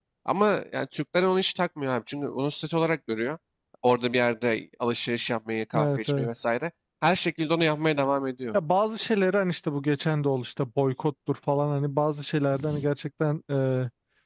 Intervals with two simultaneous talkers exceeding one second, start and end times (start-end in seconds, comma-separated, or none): none